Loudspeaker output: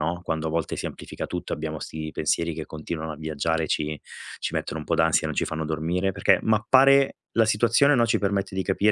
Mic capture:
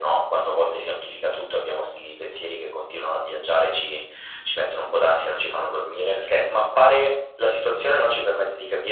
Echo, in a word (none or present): present